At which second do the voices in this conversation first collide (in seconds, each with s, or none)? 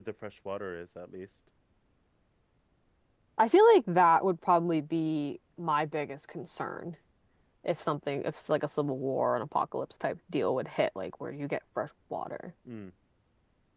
none